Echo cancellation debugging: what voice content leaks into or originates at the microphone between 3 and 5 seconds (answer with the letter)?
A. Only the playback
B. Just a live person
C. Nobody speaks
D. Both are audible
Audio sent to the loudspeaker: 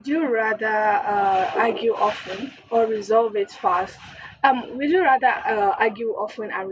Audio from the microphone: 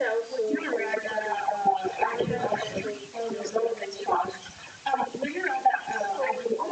D